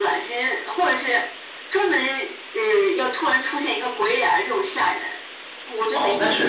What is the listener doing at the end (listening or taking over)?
taking over